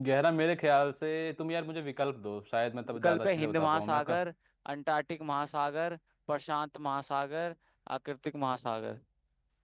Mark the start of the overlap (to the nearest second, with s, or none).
3 s